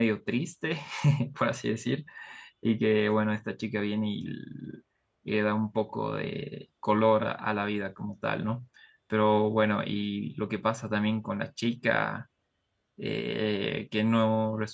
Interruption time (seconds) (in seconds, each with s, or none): none